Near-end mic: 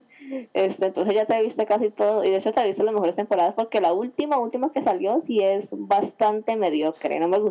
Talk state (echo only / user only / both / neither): echo only